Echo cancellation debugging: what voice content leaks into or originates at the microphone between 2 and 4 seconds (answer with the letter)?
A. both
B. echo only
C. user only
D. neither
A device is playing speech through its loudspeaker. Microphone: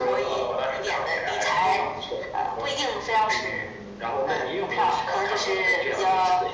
B